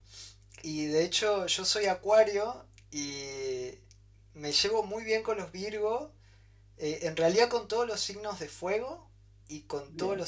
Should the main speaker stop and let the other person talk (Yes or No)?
No